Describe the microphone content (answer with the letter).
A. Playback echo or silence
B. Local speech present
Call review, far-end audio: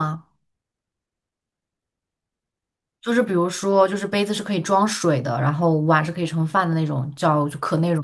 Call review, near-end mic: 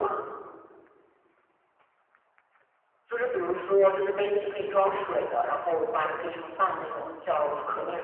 A